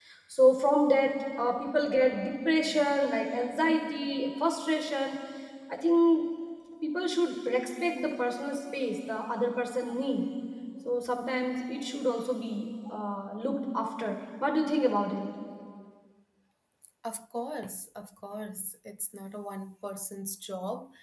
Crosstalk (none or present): none